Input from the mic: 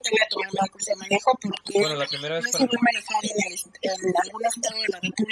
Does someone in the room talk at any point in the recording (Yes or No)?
Yes